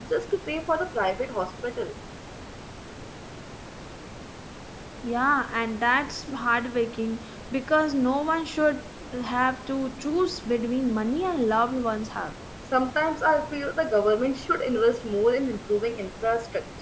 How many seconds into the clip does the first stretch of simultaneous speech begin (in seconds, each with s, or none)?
none